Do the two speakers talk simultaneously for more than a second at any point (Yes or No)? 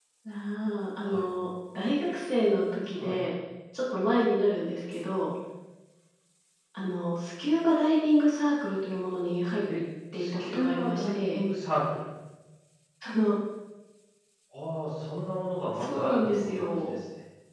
Yes